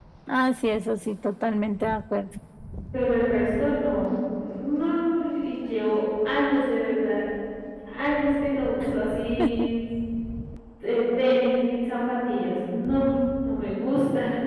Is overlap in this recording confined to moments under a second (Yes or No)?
Yes